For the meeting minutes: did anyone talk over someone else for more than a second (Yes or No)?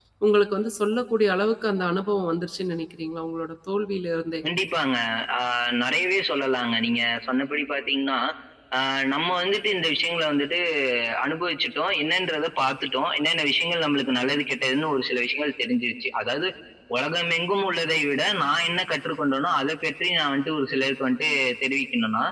No